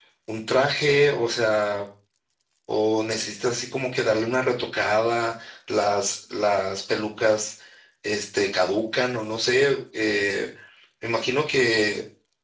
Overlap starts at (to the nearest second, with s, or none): none